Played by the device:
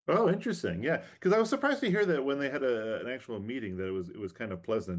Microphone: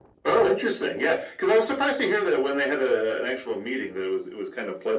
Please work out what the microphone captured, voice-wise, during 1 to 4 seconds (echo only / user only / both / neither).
echo only